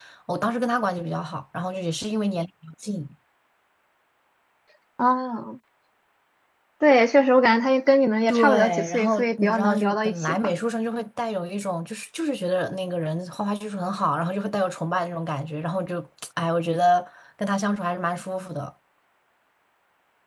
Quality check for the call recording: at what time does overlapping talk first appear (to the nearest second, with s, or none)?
8 s